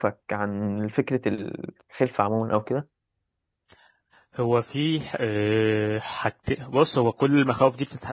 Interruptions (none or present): none